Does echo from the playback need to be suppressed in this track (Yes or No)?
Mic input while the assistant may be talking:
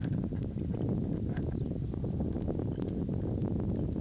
No